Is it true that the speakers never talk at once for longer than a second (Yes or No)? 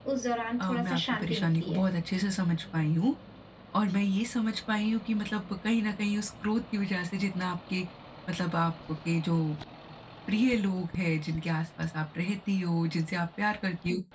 No